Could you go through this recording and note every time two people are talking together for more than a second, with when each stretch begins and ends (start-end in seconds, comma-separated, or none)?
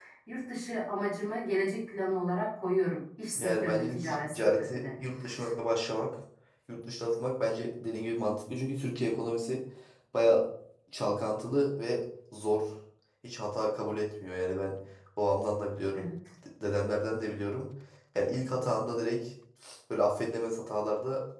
3.4-4.8